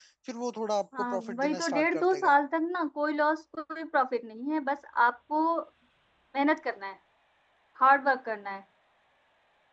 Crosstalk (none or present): present